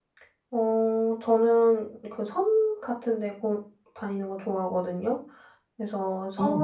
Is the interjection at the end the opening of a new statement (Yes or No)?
No